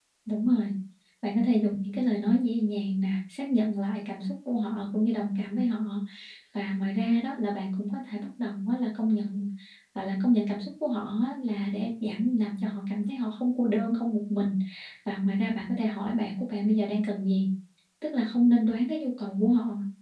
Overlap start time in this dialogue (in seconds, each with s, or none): none